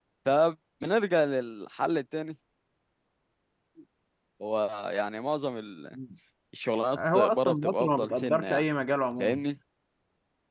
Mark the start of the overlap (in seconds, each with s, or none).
6.9 s